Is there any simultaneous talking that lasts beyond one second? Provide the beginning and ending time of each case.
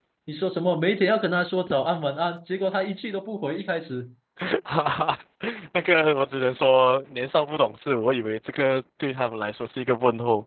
none

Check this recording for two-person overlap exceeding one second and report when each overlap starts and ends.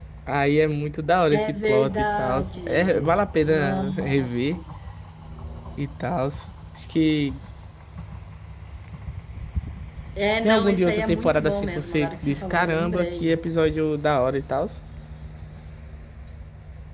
1.3-4.6, 10.4-13.4

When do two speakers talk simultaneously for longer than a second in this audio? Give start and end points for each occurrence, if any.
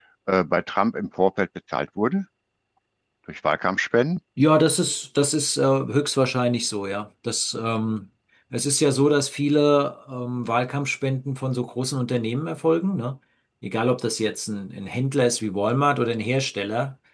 none

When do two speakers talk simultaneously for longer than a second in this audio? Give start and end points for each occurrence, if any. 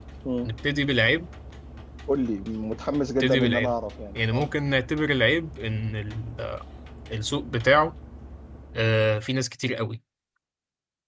none

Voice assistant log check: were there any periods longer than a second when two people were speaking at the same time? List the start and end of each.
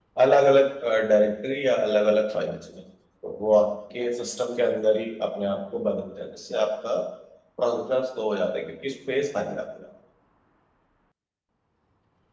none

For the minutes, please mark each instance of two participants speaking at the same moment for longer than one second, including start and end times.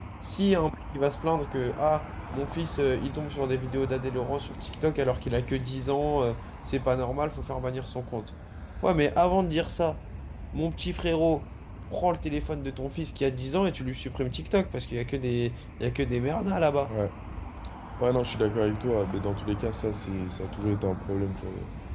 none

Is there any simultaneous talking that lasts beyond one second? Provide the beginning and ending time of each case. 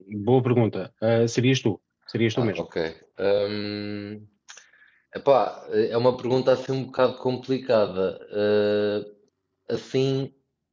none

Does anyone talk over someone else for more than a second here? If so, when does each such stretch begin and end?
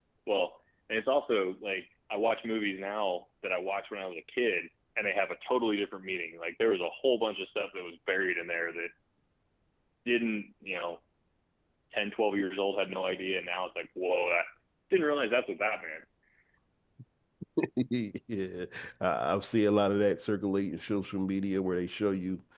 none

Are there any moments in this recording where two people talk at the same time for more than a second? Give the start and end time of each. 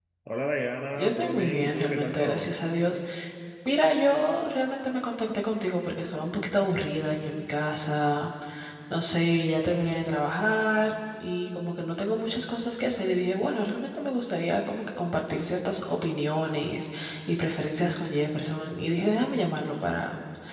0.9-2.5

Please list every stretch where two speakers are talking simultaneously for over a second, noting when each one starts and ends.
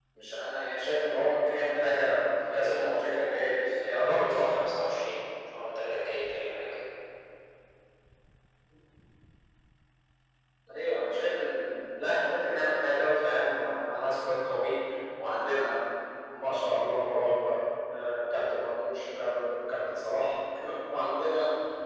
2.5-4.5

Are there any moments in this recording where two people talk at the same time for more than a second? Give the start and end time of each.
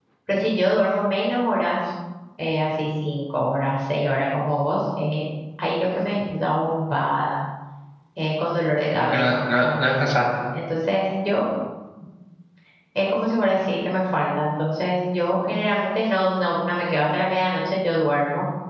8.9-10.2

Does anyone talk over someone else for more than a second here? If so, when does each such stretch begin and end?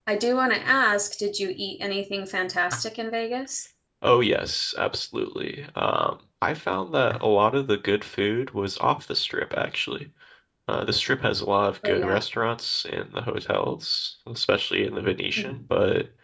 none

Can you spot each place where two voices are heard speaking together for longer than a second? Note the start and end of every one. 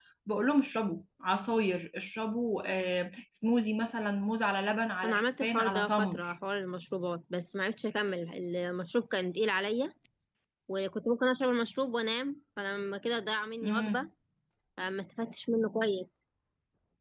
5.0-6.3

